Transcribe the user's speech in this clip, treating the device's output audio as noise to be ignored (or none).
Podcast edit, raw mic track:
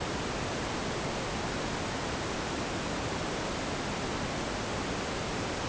none